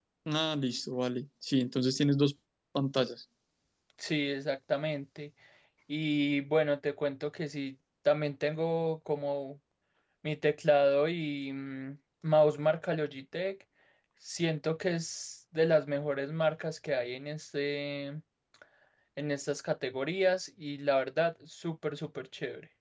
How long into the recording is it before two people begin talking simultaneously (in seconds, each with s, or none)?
none